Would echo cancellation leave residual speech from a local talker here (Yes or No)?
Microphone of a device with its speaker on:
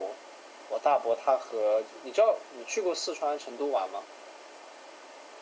No